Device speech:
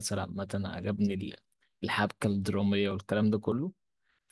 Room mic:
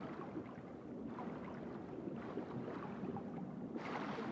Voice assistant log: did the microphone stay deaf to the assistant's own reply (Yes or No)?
Yes